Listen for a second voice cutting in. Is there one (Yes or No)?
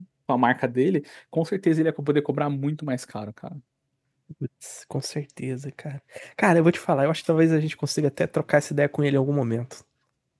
No